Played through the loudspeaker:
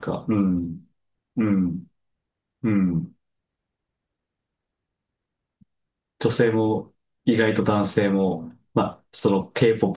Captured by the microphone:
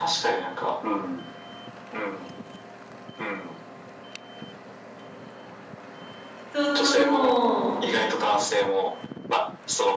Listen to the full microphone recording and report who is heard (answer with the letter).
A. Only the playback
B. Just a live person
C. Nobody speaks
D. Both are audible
D